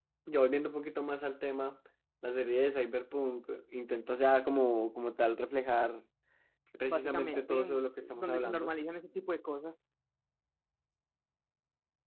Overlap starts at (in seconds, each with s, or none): 6.9 s